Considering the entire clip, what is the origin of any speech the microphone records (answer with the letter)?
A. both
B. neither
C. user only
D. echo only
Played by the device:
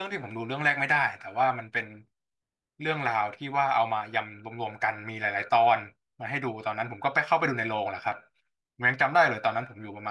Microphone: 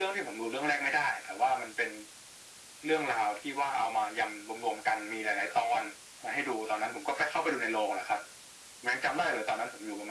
D